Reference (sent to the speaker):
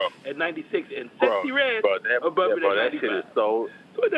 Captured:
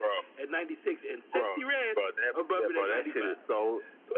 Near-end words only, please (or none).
none